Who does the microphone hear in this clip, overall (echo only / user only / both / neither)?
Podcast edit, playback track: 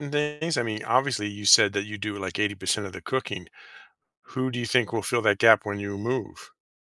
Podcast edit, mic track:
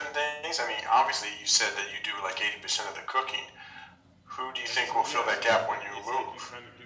both